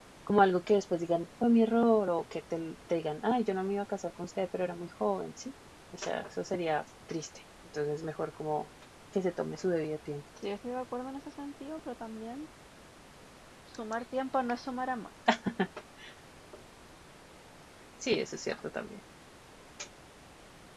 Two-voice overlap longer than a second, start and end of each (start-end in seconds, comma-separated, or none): none